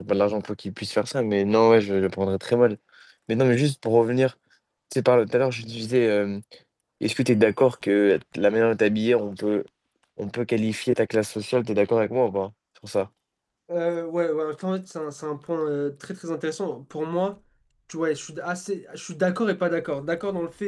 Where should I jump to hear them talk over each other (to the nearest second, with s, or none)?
none